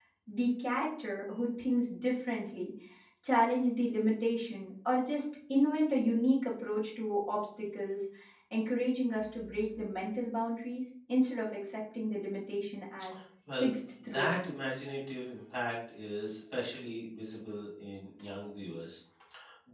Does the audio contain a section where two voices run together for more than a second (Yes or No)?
No